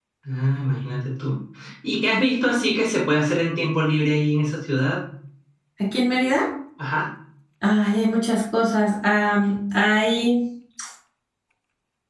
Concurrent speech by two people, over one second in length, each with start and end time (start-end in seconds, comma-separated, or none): none